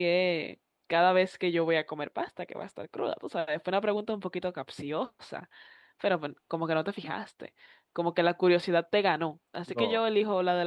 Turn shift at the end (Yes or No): No